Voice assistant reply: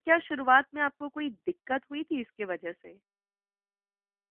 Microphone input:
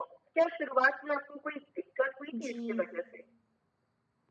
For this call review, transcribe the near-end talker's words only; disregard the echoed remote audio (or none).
जी।